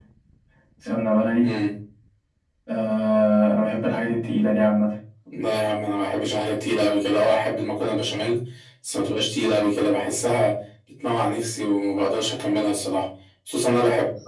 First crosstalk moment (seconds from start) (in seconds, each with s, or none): none